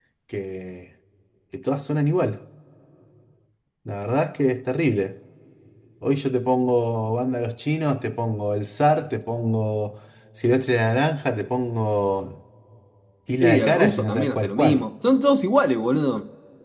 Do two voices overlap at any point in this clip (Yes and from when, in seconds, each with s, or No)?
Yes, from 13.4 s